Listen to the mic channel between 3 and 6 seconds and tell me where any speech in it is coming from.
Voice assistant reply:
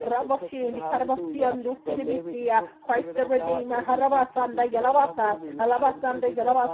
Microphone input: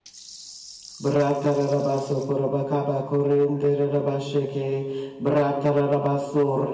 user only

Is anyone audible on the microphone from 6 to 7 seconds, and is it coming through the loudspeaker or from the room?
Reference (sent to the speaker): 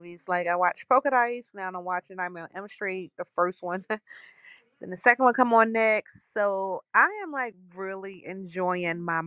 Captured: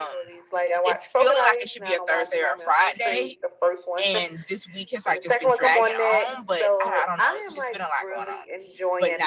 both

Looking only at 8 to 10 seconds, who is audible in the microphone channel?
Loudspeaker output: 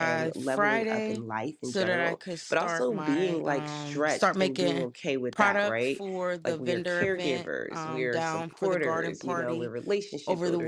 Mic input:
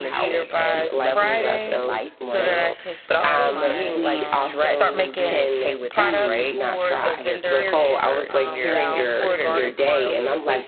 both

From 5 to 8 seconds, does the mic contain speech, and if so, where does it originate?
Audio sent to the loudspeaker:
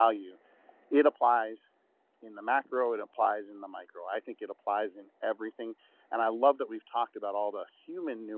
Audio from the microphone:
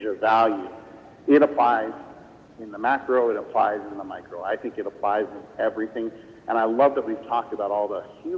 echo only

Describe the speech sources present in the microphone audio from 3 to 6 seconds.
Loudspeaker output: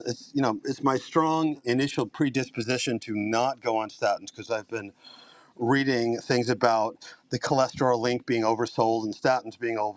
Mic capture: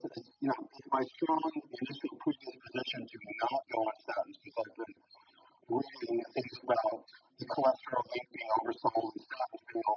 echo only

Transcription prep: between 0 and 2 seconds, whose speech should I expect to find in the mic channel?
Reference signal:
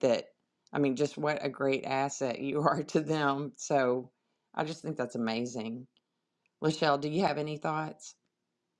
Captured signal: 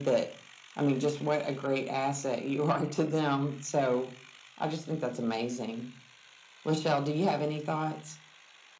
echo only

